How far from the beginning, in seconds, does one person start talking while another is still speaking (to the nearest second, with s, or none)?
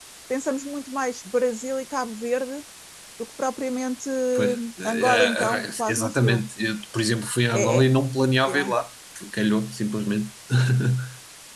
4 s